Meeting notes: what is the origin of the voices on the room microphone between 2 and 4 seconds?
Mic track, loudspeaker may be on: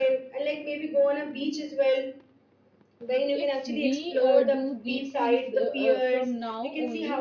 both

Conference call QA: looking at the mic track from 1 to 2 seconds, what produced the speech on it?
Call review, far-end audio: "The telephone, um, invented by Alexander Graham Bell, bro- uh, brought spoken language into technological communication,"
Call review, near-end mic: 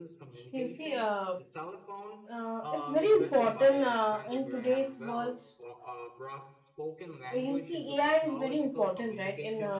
both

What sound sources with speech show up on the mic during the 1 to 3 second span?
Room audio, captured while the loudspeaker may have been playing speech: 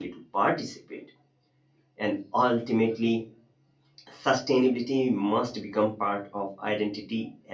user only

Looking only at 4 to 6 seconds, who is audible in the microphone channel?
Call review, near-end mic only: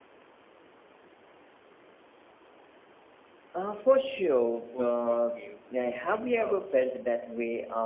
both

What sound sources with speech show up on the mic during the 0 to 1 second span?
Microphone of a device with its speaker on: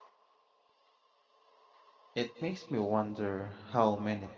neither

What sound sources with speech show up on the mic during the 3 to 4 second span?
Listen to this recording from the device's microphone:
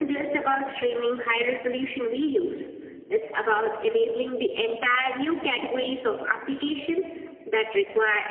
echo only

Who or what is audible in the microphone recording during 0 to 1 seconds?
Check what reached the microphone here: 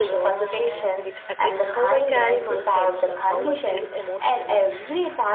both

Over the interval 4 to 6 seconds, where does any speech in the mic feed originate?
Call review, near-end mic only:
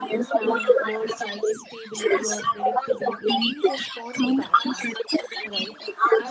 both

